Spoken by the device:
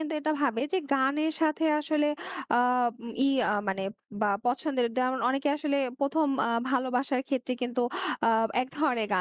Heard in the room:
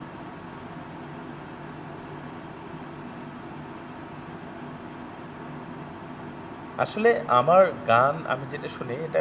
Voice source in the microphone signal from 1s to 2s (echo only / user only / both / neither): neither